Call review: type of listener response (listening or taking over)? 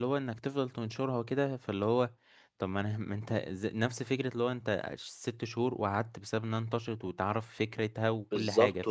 taking over